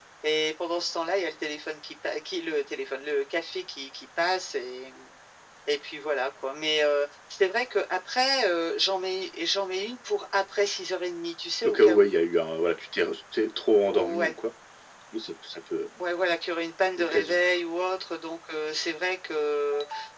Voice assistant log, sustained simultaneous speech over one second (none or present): none